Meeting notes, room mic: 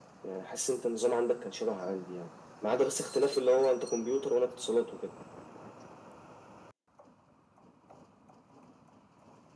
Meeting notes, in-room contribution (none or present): none